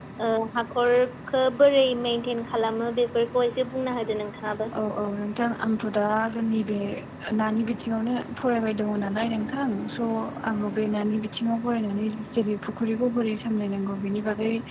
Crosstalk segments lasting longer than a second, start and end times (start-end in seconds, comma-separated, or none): none